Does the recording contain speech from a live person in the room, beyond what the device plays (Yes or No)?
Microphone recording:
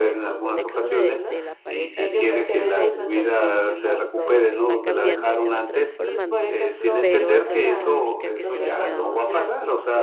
Yes